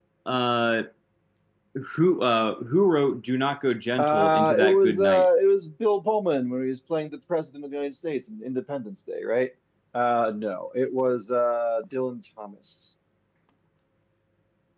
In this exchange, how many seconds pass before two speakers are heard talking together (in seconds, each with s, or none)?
4.0 s